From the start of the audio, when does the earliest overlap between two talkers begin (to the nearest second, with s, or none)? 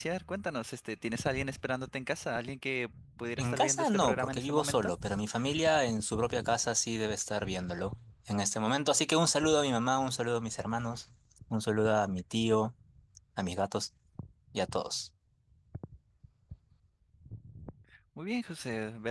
3 s